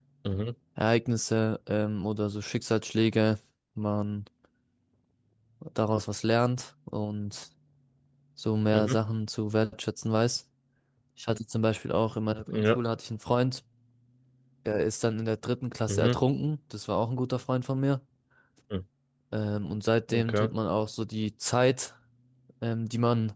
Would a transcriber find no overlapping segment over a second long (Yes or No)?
Yes